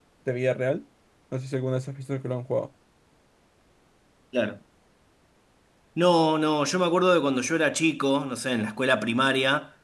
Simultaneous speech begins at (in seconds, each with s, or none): none